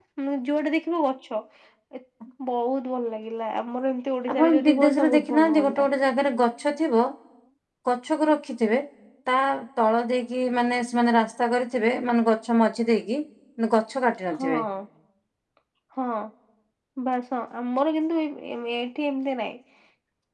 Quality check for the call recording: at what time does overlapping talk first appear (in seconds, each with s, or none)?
4.3 s